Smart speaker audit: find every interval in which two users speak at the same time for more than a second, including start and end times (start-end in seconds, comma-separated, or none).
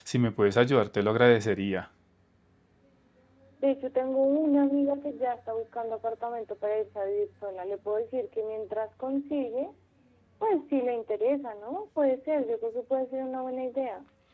none